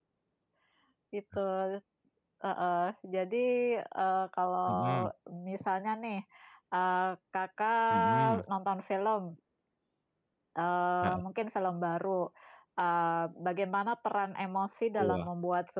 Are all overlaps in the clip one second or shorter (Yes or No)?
Yes